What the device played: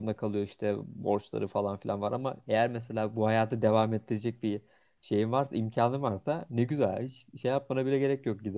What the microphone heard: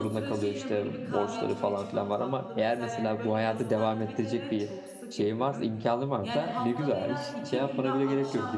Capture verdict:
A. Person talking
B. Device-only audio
A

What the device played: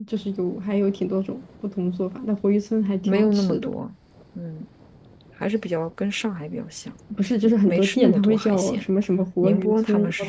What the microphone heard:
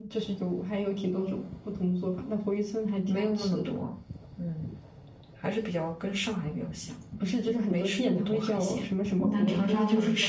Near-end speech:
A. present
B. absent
A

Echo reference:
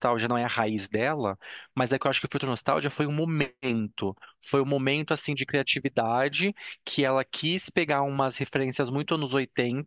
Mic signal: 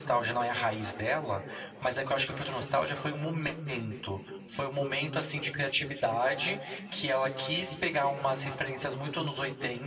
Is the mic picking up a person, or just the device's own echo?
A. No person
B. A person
A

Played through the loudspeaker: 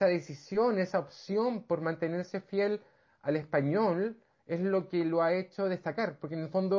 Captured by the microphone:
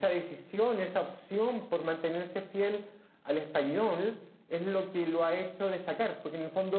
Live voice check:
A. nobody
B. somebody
A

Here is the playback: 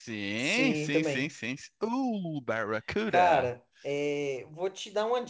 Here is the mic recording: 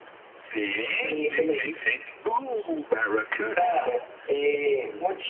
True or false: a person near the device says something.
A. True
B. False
B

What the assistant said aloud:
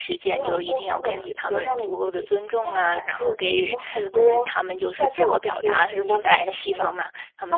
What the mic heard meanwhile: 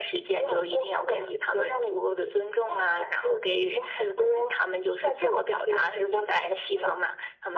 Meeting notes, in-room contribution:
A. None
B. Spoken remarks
A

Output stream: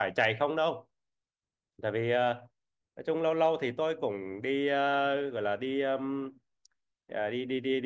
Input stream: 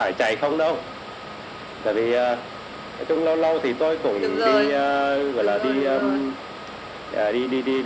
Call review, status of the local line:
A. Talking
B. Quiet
A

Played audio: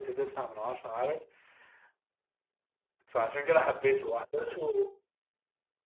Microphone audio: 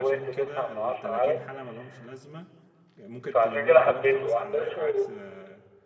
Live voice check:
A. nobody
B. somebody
B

